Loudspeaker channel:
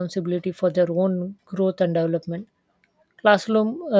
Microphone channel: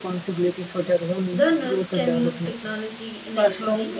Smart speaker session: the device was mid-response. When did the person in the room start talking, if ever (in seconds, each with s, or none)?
1.3 s